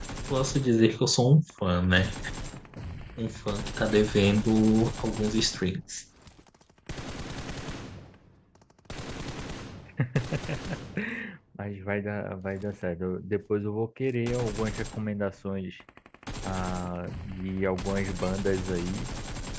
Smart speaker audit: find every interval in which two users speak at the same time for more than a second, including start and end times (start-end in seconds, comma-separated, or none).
none